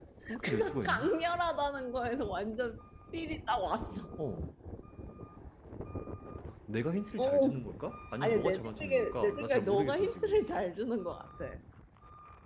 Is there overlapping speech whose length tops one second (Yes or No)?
Yes